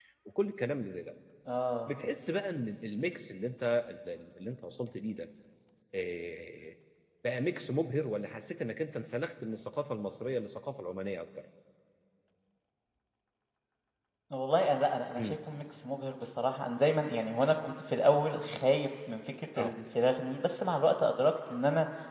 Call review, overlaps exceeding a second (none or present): none